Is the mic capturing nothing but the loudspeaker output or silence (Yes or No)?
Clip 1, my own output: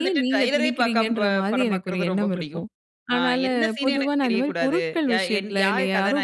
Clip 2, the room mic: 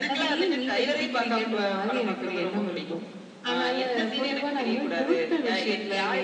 Yes